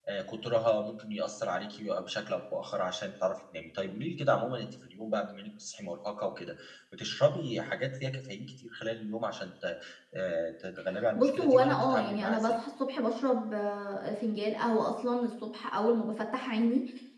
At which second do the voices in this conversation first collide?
11.2 s

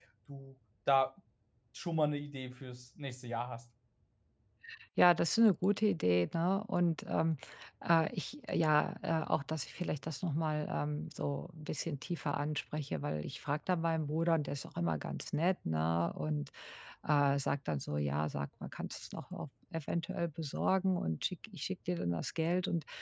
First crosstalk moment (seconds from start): none

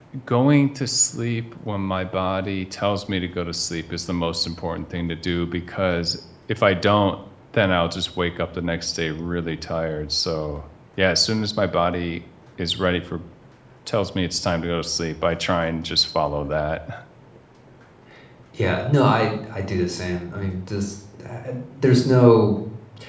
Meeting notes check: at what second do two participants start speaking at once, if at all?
none

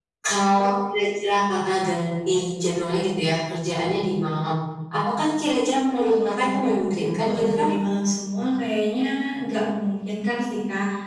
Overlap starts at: 6.0 s

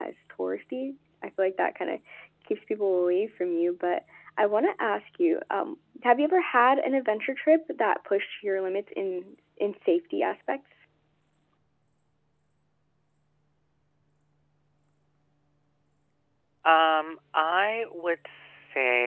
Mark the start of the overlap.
none

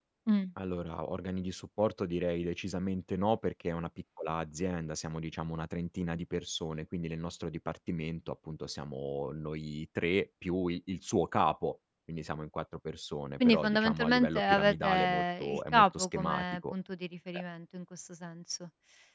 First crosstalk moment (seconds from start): 13.4 s

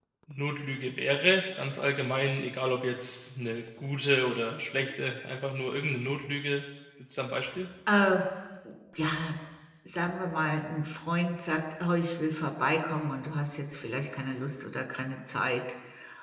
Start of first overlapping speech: none

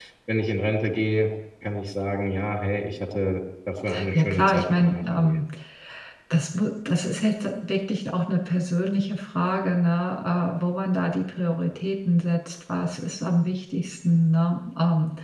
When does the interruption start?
4.1 s

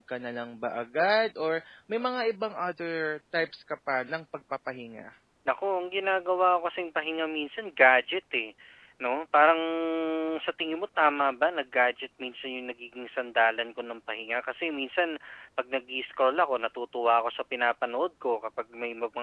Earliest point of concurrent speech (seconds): none

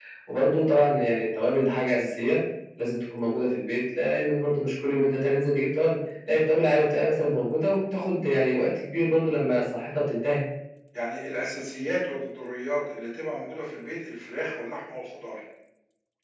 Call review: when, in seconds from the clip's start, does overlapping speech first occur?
none

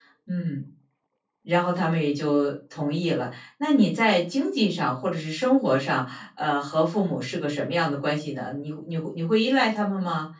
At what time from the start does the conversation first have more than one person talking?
none

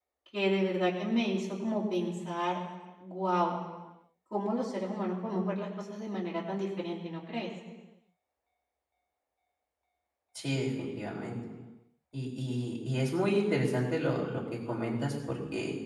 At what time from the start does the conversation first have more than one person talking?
none

